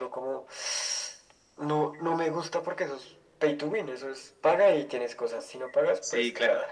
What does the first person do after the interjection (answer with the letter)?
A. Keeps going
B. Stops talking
B